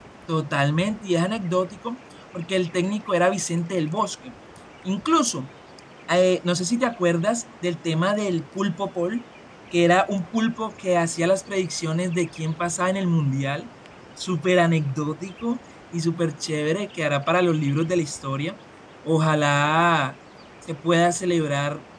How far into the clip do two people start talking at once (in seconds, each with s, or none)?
none